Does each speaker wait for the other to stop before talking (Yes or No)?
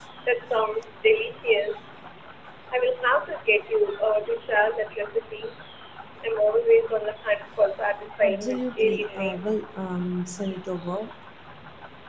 No